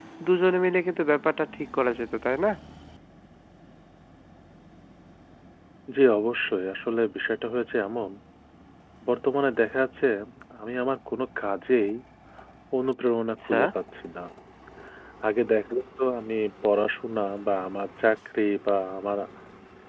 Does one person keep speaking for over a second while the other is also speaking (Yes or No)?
No